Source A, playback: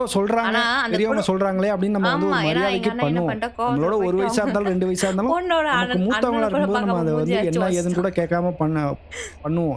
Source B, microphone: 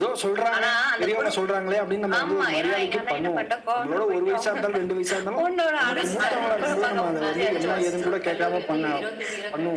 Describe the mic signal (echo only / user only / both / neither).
both